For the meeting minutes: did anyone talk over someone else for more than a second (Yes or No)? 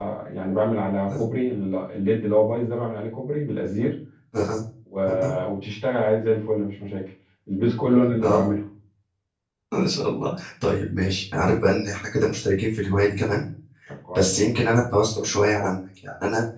No